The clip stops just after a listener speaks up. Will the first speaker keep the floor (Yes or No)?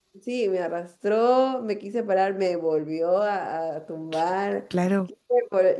Yes